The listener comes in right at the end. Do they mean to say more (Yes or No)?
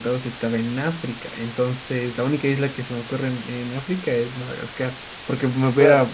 No